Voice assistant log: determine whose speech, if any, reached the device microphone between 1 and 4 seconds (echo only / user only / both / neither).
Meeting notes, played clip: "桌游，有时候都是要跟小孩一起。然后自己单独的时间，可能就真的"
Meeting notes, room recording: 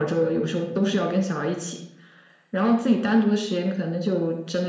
echo only